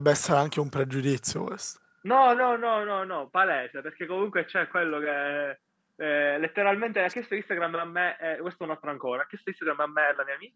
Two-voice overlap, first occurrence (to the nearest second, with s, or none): none